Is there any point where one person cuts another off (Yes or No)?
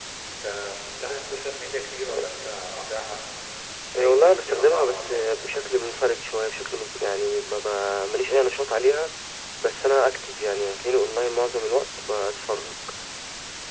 Yes